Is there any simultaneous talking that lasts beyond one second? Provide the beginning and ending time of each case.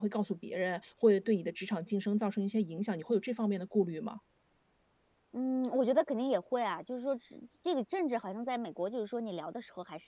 none

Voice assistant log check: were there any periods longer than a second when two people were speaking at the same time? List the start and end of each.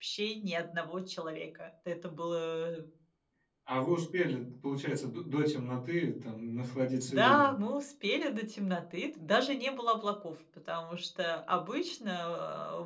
none

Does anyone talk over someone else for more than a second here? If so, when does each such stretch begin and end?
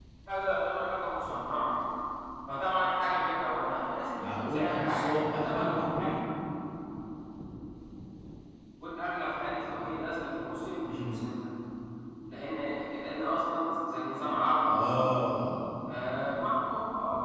4.1-6.1

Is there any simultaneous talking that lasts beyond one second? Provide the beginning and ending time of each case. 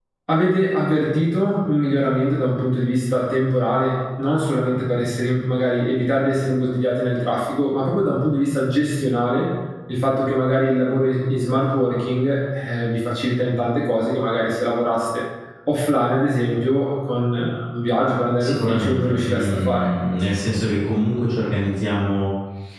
18.4-19.9

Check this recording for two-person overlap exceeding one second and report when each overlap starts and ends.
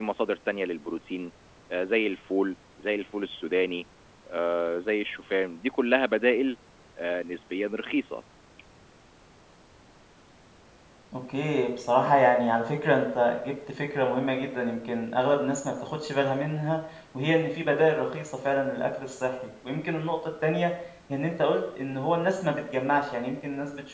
none

